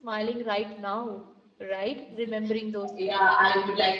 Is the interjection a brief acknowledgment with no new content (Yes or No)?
No